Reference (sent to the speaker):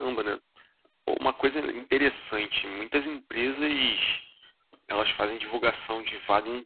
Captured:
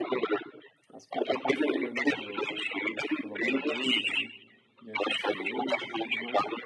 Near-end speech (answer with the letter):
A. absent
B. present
B